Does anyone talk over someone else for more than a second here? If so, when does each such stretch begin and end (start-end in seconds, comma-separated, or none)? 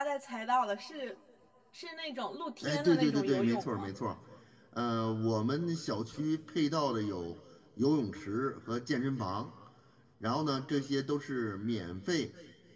2.6-3.9